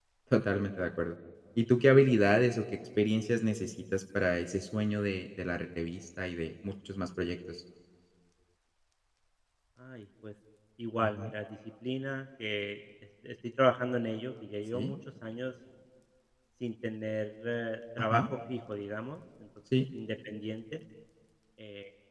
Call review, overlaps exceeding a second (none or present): none